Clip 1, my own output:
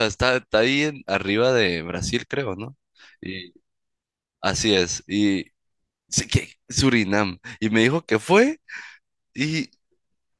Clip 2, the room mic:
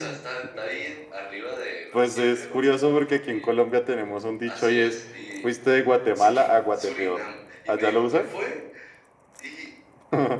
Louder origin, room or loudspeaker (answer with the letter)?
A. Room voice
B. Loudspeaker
A